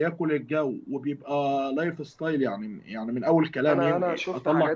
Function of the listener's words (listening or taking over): taking over